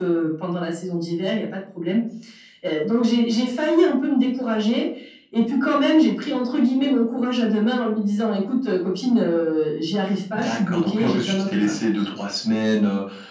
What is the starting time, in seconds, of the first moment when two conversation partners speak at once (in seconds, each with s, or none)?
10.4 s